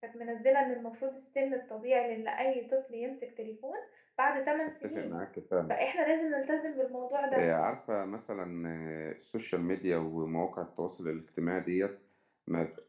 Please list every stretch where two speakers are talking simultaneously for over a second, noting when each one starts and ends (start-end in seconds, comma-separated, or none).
none